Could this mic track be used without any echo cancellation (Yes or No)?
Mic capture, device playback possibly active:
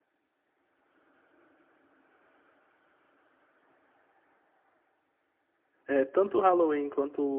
Yes